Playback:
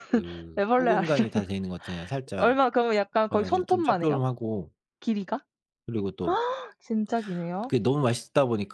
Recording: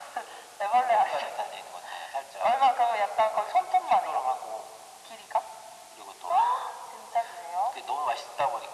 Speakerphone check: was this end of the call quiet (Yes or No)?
Yes